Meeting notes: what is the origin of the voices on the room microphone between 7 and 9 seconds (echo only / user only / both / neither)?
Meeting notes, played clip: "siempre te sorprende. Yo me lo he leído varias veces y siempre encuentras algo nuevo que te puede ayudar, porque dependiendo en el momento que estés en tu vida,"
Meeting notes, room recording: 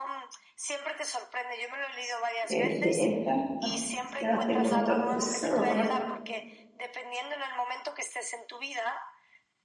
echo only